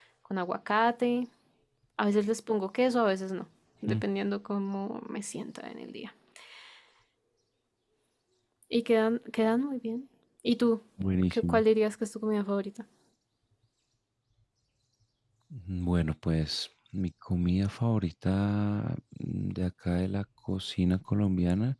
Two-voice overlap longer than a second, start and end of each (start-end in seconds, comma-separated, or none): none